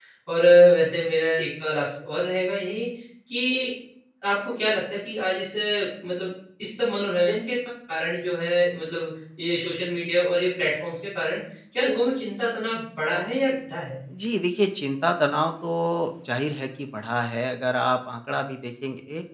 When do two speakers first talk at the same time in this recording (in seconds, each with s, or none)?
none